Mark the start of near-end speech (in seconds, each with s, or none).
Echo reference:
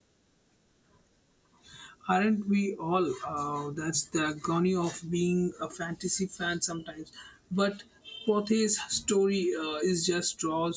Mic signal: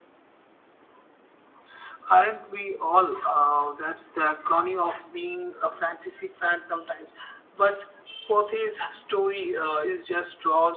none